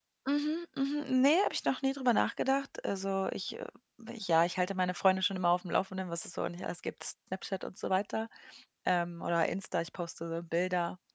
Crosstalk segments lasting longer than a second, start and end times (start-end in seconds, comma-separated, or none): none